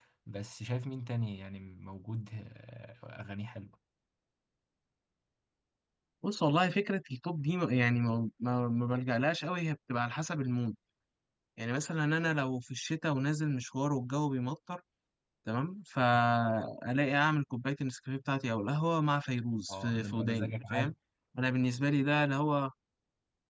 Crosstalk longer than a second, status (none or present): present